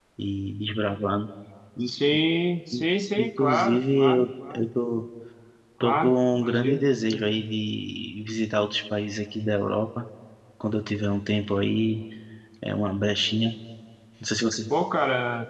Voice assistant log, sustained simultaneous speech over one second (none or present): present